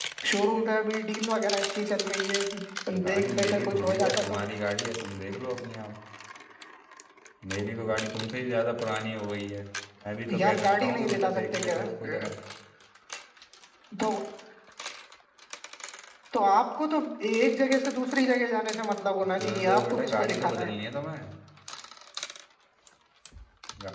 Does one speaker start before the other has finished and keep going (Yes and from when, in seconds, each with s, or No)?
Yes, from 3.0 s